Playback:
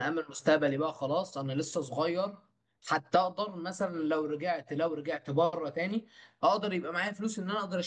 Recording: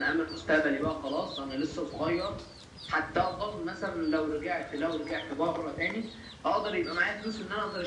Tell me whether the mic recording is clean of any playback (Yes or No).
No